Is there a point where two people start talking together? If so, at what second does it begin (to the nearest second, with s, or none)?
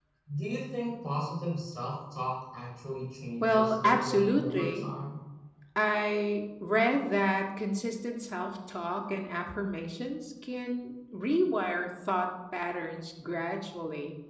3 s